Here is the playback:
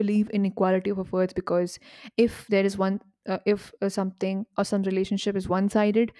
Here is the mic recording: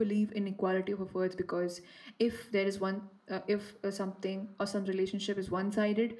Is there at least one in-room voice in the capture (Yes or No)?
No